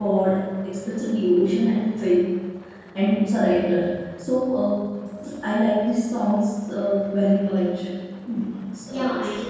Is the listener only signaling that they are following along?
No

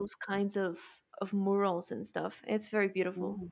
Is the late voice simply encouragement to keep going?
Yes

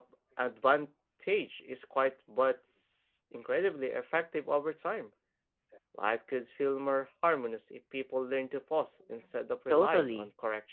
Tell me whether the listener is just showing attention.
No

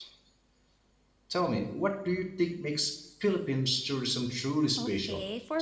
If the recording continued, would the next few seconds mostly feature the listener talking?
Yes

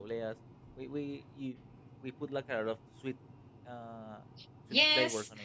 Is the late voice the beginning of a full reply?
Yes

